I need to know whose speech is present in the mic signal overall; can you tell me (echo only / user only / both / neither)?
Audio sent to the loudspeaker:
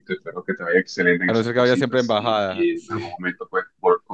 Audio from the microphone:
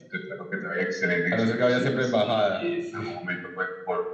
echo only